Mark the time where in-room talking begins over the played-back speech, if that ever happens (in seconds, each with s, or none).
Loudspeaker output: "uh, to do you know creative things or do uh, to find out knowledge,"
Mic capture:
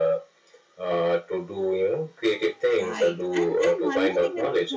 2.8 s